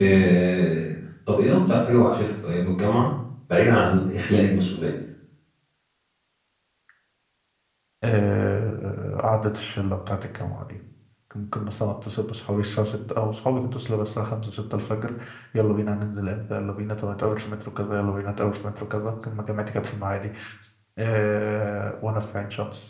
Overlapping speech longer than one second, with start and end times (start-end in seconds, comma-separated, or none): none